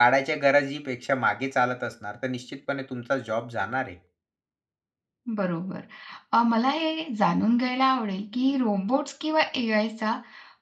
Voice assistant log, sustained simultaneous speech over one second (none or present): none